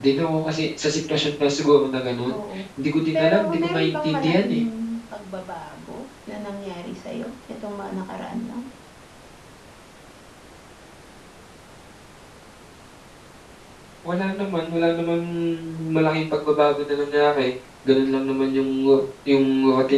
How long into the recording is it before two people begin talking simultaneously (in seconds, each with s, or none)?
3.1 s